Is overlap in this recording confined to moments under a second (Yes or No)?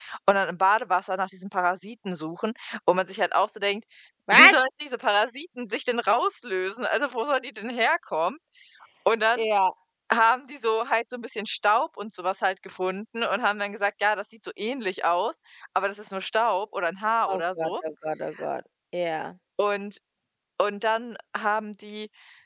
Yes